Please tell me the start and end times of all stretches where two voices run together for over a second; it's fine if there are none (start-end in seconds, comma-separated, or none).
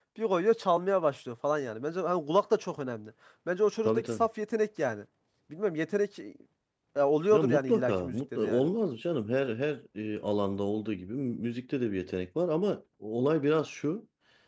7.3-8.7